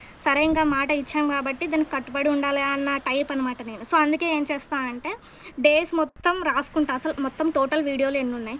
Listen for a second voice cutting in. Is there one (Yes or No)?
No